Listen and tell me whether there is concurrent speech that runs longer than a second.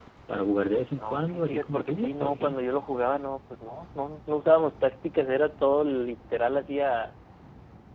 Yes, from 1.0 s

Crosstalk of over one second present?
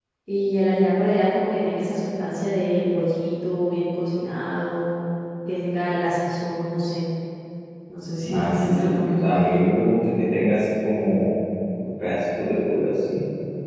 Yes, from 8.3 s

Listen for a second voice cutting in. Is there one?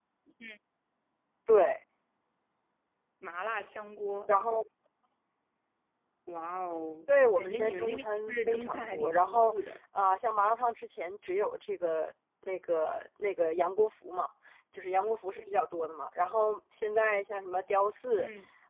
Yes, from 7.1 s

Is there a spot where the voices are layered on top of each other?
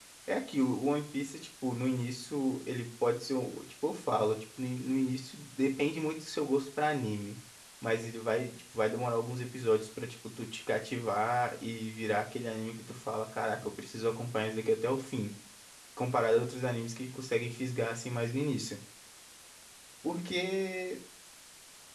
No

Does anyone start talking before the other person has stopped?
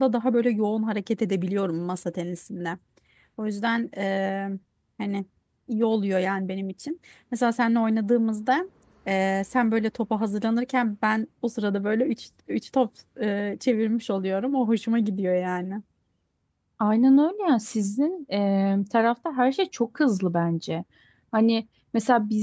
No

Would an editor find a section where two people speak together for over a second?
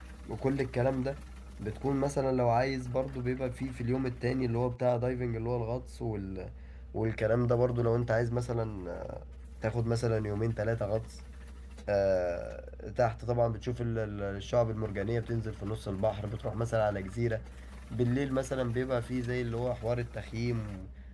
No

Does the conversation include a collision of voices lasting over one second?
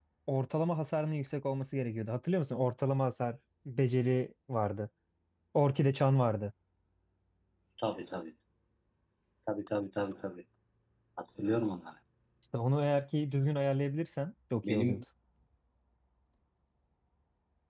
No

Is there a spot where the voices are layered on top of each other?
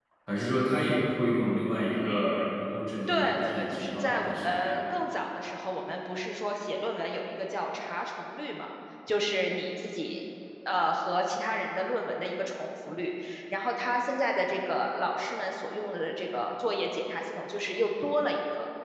Yes, from 3.1 s

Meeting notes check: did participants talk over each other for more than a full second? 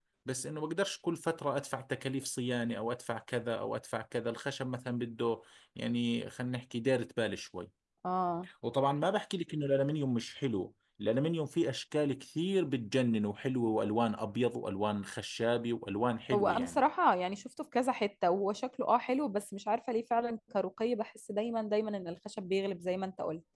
No

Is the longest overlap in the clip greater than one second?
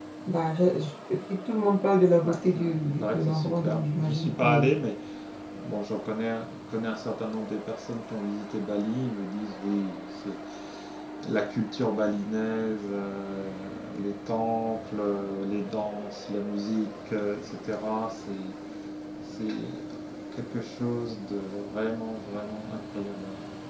Yes, from 2.2 s

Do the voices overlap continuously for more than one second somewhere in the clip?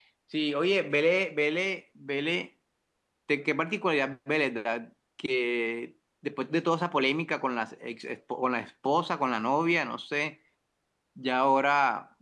No

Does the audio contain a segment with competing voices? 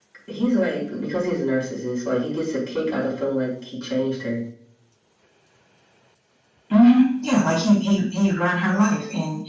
No

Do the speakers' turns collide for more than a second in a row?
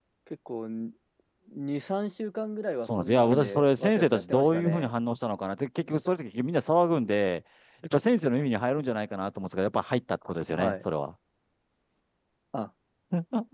Yes, from 2.8 s

